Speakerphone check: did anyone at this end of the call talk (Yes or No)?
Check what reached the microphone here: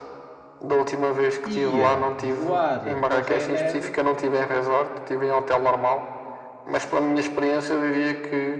Yes